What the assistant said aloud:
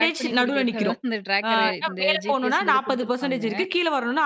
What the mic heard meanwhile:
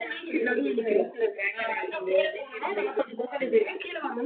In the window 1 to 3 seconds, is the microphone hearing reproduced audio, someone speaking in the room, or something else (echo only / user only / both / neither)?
echo only